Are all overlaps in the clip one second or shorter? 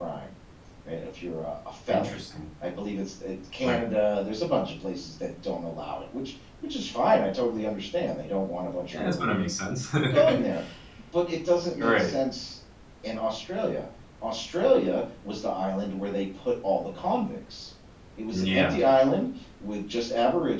Yes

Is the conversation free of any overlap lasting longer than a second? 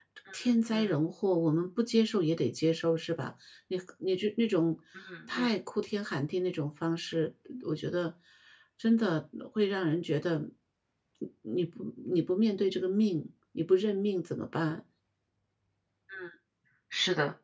Yes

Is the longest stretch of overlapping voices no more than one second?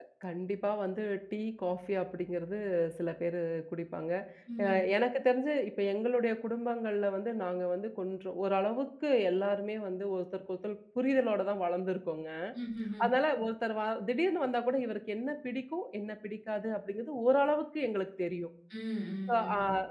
Yes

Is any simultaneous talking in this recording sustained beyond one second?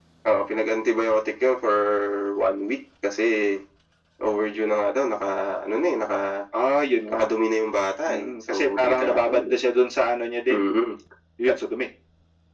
Yes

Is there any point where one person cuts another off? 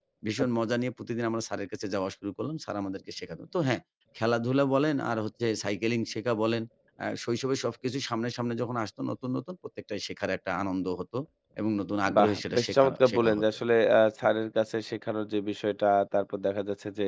Yes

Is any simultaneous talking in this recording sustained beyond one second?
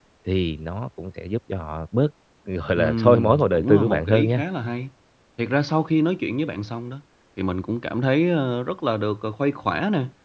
Yes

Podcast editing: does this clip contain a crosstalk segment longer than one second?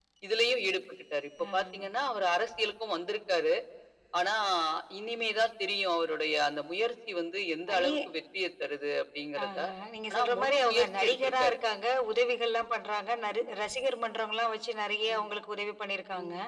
Yes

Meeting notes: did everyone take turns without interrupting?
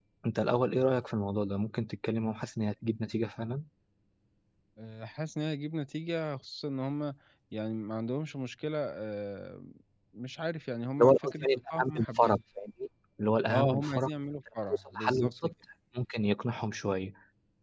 No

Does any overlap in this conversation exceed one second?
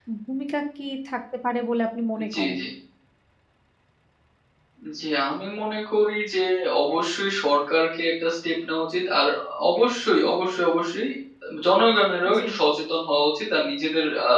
No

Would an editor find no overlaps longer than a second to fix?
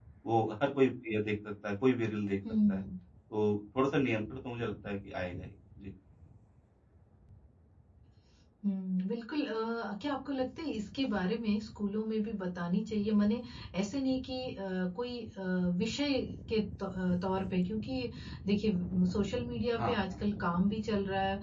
Yes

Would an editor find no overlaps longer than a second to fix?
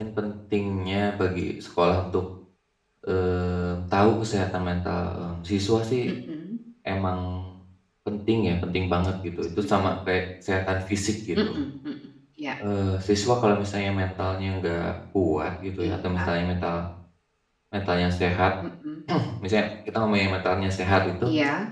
Yes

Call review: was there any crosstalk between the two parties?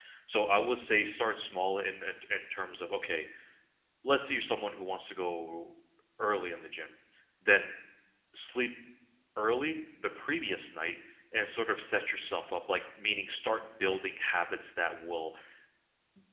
No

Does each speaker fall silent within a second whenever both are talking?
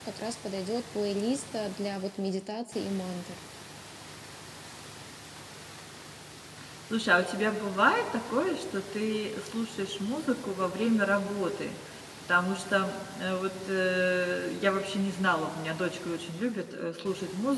Yes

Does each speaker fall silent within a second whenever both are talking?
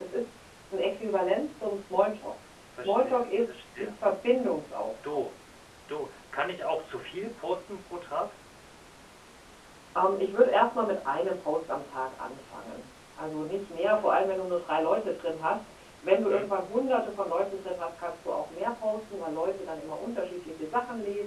No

